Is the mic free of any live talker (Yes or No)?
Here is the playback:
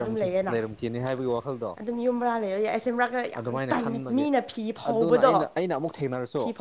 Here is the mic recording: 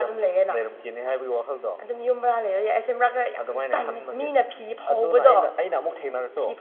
Yes